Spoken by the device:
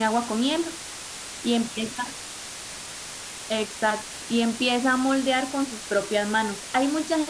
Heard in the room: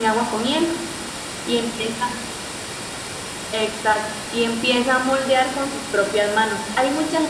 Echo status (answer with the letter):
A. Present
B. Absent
A